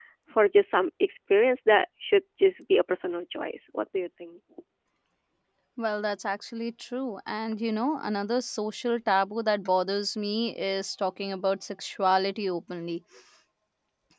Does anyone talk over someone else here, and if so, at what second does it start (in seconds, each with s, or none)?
none